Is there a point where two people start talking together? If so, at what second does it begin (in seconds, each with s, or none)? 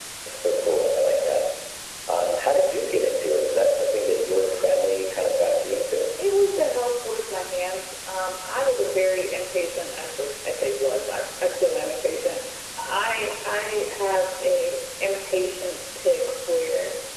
none